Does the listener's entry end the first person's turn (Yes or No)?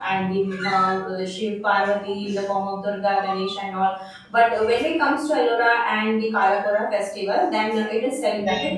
No